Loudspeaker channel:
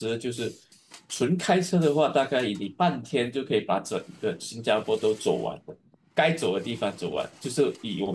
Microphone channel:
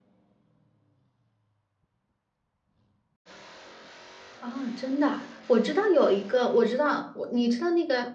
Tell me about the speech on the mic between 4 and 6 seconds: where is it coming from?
user only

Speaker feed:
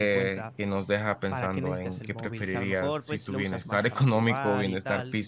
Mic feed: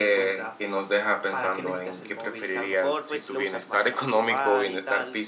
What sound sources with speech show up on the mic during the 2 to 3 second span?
echo only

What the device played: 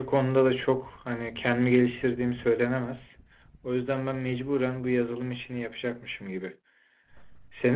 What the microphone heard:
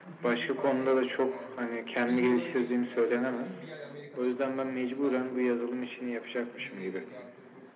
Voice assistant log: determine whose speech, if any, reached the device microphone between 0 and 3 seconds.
both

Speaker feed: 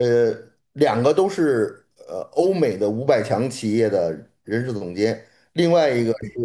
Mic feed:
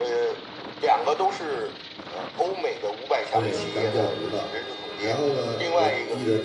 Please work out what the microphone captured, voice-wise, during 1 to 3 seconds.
echo only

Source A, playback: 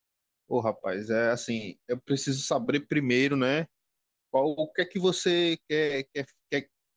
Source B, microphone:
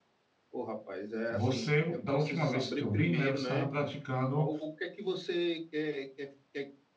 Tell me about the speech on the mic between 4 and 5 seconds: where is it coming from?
both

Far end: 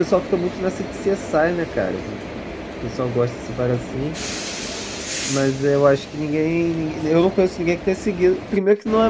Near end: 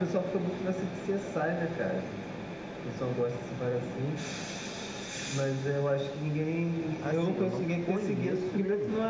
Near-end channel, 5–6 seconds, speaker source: echo only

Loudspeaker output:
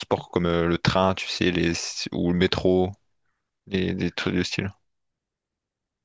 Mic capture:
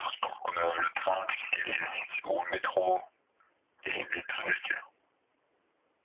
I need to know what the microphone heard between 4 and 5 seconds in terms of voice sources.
echo only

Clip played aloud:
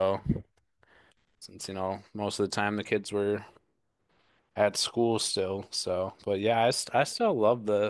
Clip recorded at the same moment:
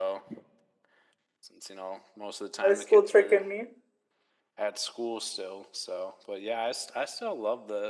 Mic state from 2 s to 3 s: both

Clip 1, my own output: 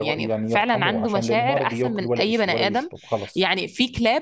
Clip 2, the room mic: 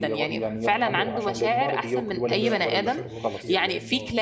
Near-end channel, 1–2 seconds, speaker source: both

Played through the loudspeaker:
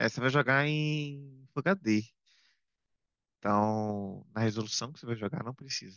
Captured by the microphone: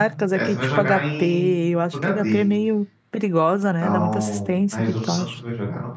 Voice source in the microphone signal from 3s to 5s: both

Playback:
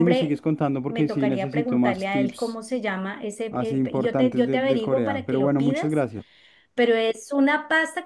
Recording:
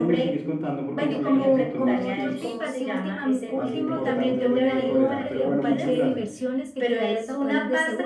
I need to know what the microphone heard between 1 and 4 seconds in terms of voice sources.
both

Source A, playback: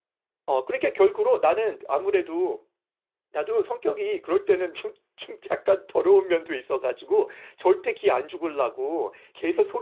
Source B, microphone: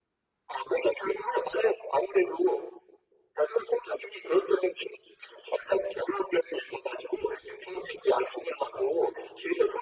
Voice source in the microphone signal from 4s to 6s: echo only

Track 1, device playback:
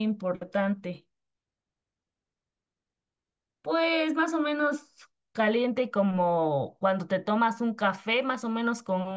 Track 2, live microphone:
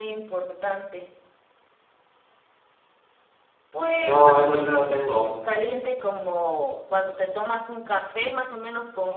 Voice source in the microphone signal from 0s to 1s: echo only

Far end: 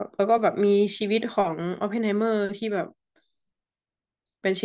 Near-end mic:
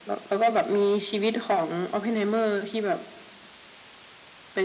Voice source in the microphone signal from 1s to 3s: echo only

